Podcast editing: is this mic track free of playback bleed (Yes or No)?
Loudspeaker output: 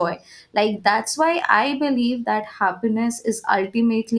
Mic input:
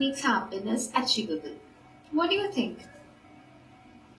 Yes